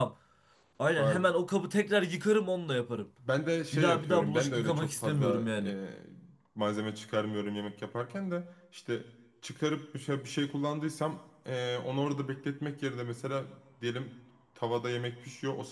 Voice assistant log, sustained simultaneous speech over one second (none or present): present